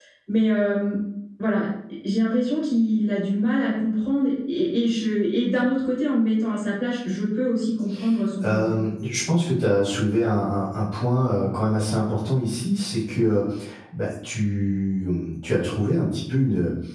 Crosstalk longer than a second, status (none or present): none